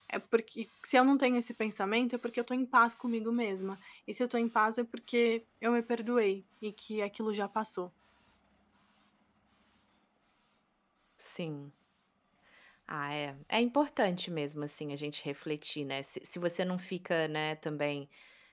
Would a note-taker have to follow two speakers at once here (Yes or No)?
No